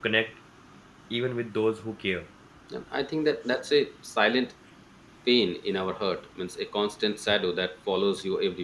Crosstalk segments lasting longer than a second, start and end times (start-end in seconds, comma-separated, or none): none